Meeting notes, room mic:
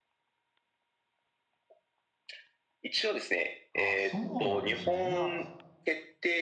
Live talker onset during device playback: 4 s

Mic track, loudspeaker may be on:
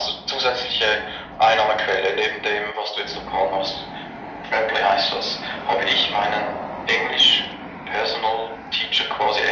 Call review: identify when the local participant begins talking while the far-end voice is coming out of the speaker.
none

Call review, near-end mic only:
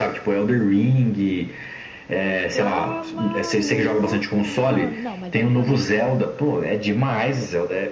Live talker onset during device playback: 3 s

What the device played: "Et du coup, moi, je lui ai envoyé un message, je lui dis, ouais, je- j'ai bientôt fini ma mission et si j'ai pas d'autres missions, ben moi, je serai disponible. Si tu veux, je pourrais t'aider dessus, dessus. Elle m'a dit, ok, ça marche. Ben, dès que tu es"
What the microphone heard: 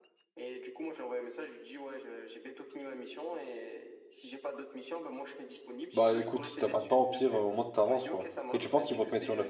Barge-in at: 6 s

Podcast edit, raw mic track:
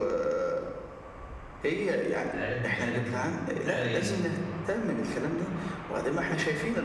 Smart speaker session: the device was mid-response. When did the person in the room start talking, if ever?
2 s

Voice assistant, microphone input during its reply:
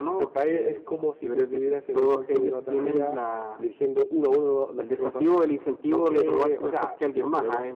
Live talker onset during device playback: none

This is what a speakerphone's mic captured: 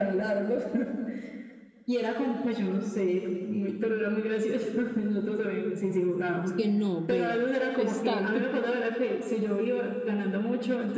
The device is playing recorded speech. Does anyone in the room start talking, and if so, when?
6 s

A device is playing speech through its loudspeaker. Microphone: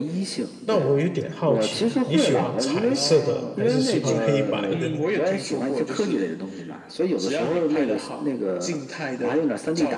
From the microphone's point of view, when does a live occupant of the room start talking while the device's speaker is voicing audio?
1 s

